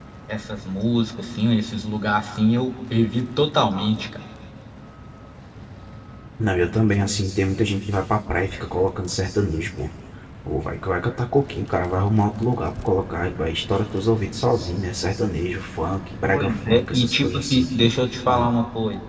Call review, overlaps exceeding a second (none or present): present